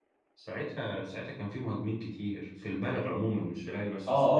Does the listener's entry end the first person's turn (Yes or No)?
Yes